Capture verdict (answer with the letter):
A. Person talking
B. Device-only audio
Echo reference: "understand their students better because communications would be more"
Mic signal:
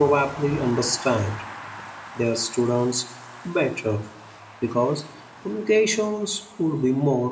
B